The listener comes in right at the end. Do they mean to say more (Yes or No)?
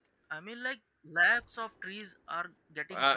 Yes